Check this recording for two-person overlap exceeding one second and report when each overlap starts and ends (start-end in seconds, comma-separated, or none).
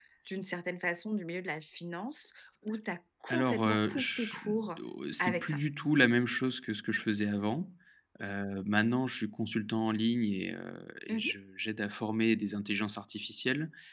3.3-4.8